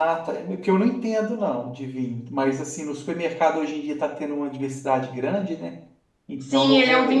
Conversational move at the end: taking over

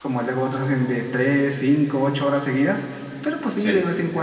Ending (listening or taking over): listening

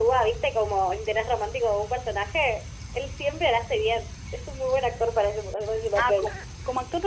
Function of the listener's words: taking over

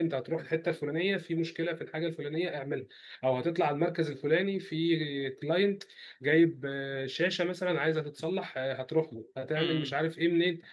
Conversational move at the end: listening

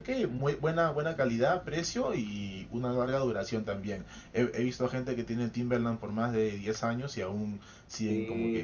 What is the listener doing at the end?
taking over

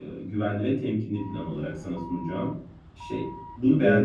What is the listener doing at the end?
taking over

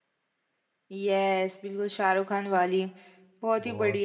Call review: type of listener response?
taking over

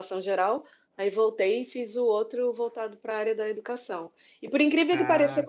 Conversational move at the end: listening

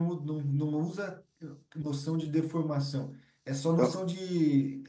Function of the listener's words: listening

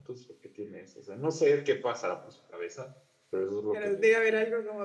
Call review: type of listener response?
taking over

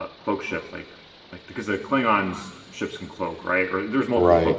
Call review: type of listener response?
listening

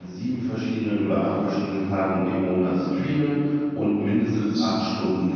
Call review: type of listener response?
listening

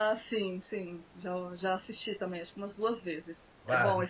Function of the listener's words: taking over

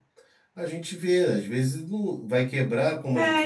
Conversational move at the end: taking over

